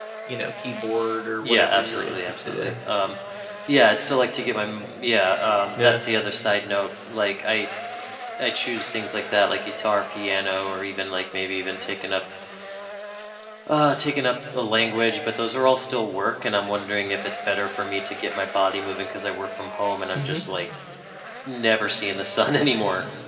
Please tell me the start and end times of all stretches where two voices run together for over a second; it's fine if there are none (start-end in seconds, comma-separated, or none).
1.4-2.7